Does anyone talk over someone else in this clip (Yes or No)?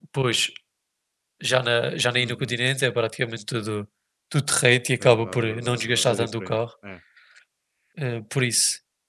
Yes